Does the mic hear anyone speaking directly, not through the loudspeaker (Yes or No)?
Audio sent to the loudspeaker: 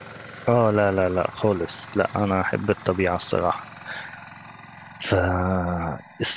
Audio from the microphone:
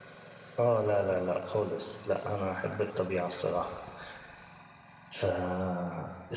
No